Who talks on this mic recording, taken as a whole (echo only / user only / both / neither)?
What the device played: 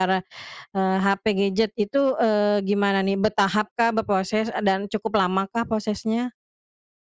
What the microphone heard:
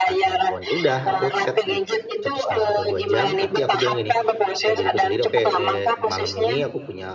both